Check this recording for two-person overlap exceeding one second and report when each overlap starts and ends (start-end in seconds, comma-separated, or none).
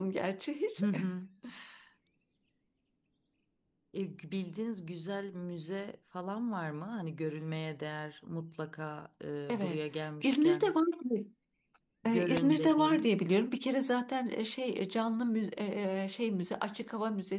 12.1-13.3